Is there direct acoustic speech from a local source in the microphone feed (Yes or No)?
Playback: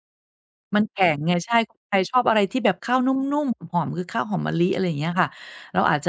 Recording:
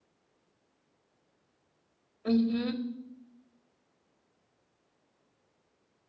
Yes